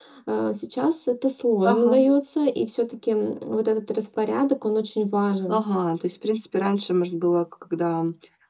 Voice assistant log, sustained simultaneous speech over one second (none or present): none